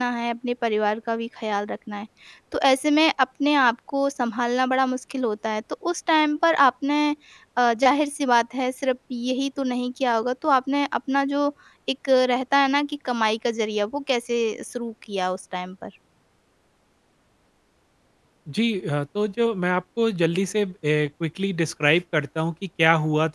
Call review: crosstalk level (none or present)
none